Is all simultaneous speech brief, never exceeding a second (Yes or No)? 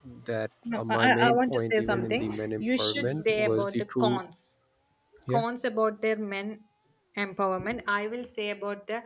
No